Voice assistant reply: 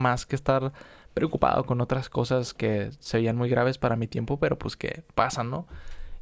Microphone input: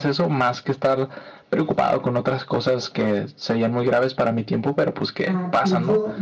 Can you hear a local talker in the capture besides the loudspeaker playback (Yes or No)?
Yes